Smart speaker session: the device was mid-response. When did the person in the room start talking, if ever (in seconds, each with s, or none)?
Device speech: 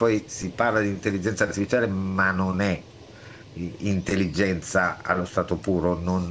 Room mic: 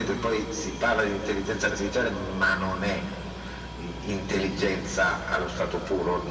none